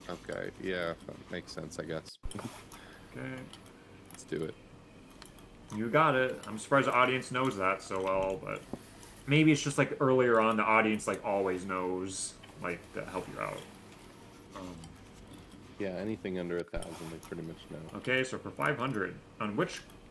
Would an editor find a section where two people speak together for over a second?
No

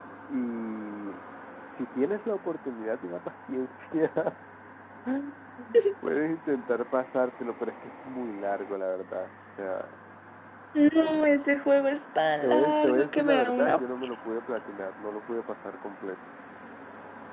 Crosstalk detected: Yes, from 12.4 s

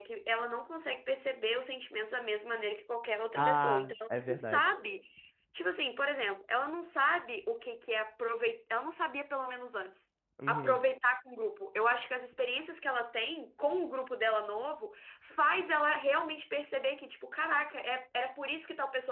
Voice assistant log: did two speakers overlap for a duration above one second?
Yes, from 3.4 s

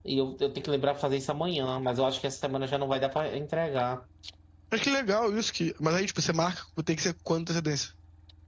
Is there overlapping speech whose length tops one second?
No

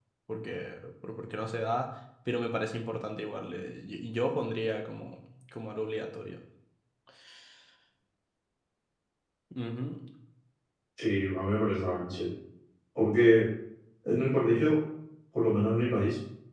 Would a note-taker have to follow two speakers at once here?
No

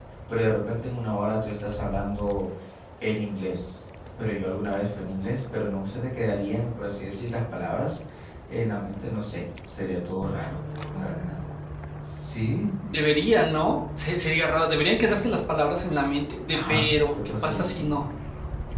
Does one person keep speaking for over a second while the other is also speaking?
Yes, from 16.5 s

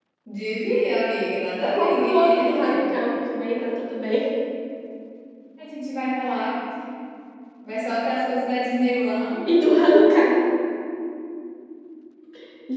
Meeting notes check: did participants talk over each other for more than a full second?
Yes, from 1.6 s

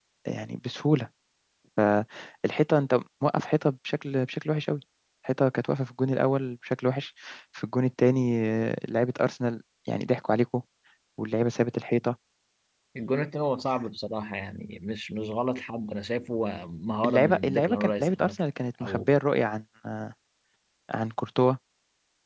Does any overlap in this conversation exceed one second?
Yes, from 17.0 s

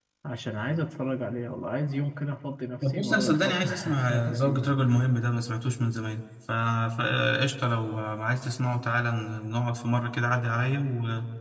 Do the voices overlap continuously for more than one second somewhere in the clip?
Yes, from 2.8 s

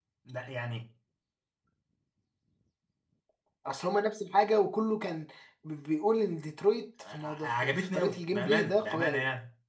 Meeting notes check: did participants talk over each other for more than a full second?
Yes, from 7.0 s

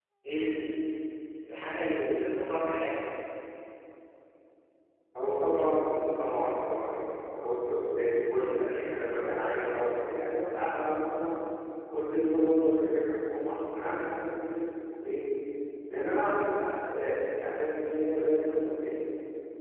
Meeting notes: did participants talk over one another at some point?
No

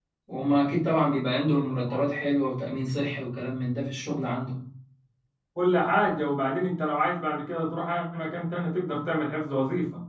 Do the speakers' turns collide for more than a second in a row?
No

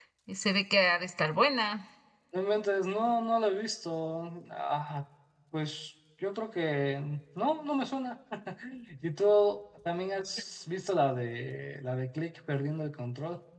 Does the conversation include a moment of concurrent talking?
No

